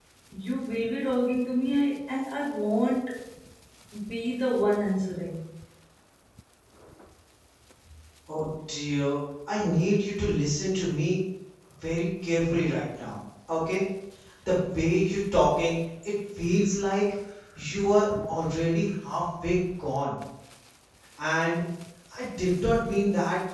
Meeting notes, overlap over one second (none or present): none